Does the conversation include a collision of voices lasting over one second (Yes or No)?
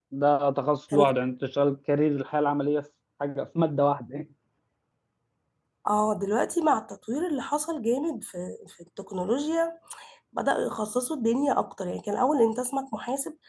No